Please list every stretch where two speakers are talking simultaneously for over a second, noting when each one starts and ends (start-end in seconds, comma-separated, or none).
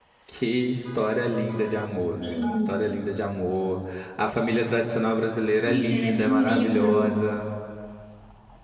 5.9-7.1